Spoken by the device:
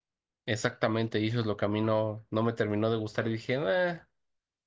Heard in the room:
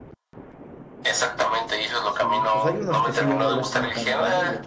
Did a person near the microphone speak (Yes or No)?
Yes